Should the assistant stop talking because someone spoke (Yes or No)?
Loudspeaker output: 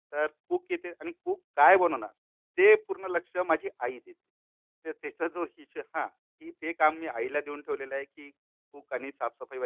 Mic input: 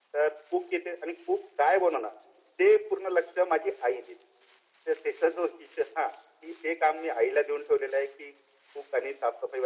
No